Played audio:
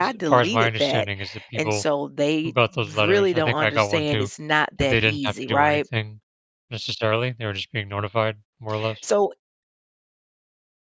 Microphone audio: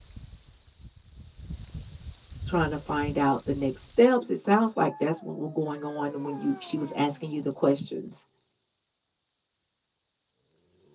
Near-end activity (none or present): present